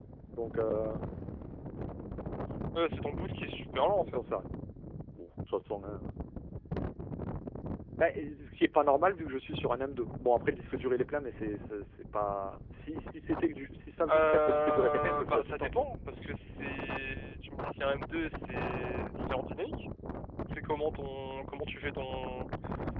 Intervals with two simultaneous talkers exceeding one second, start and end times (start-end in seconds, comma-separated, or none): 14.1-15.9